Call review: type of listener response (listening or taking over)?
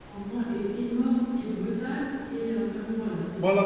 taking over